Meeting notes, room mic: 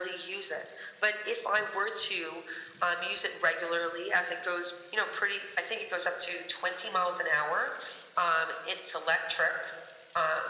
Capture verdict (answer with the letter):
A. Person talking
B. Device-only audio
B